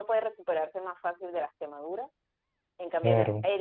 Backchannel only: Yes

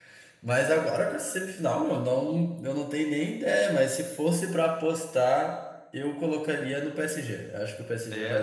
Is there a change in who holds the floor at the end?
No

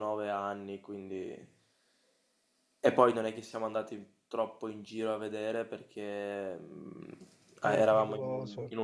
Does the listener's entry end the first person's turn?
No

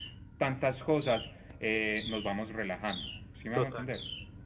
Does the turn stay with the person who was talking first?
No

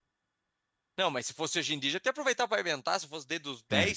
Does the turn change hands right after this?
Yes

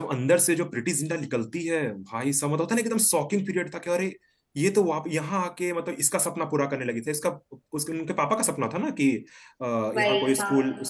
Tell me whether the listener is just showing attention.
Yes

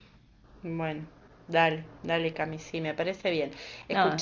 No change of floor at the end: Yes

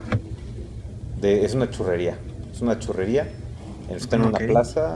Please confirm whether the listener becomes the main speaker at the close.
No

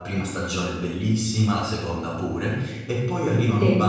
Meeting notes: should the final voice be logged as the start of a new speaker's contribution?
No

